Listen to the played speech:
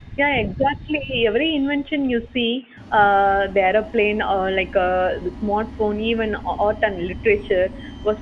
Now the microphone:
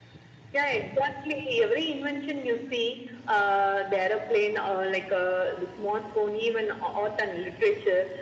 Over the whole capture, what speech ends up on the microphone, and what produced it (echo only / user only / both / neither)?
echo only